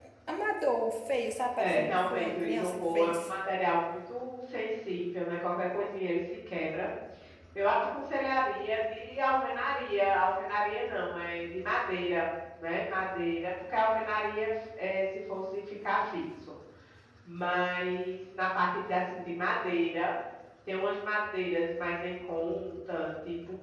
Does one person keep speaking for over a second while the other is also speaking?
Yes, from 1.6 s

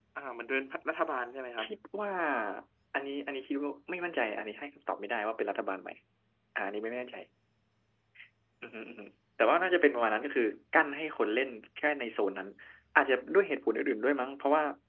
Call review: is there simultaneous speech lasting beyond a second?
No

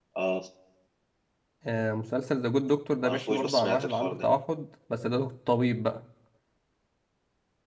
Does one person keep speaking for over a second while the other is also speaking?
Yes, from 3.0 s

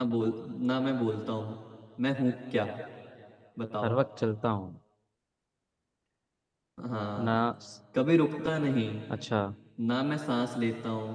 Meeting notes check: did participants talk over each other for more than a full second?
No

